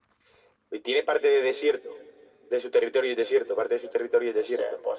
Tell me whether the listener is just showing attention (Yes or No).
No